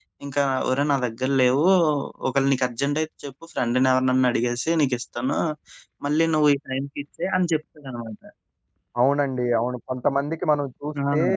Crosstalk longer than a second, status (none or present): none